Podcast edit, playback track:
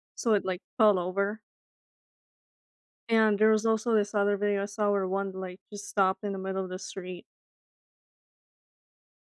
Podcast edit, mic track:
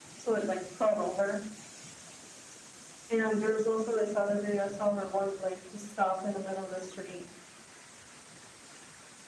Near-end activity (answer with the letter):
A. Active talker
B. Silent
B